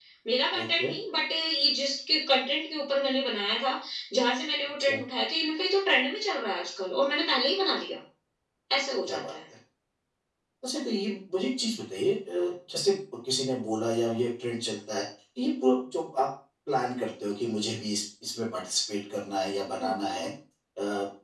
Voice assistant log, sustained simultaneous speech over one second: none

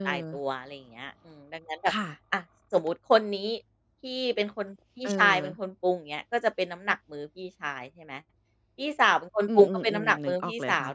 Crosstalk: present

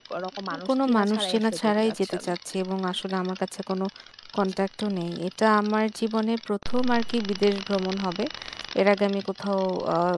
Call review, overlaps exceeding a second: present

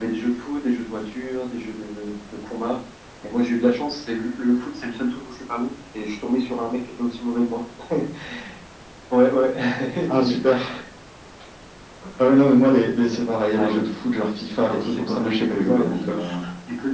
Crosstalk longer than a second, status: present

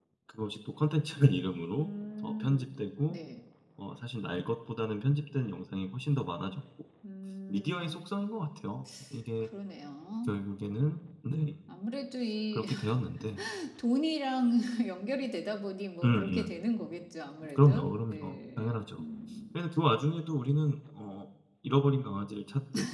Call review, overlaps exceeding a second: present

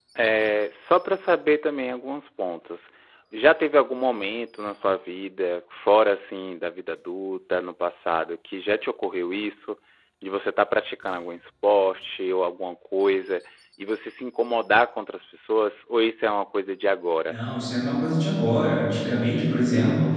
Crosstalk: none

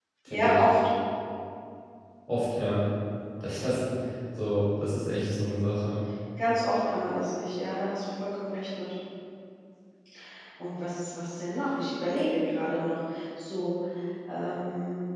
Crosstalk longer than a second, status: none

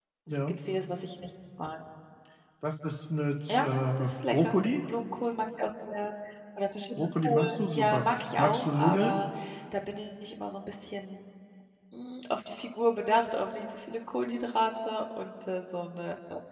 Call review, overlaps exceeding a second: present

